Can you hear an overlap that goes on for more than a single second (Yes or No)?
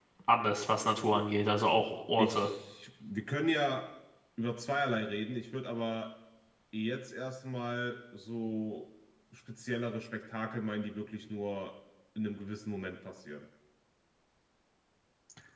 No